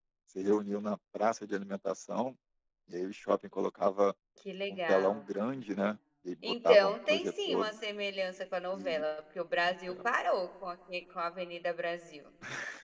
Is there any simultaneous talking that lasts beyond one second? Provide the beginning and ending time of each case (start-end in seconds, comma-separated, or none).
6.5-7.7